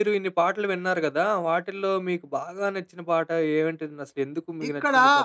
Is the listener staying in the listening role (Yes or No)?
No